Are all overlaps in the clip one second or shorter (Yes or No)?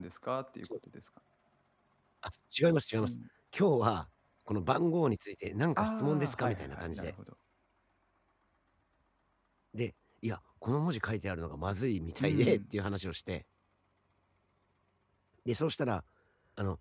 No